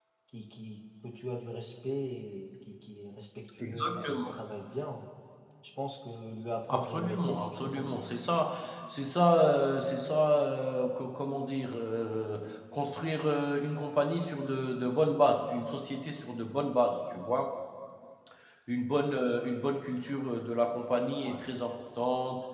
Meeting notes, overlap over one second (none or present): present